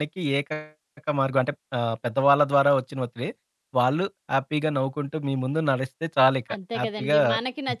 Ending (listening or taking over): taking over